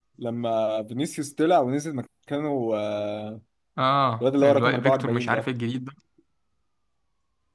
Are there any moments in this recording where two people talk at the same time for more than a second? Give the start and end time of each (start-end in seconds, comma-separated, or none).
4.2-5.5